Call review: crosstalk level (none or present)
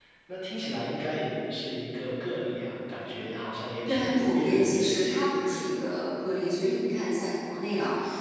present